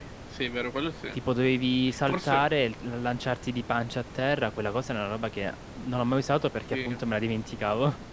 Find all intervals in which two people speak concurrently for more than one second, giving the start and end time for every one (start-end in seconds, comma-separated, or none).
none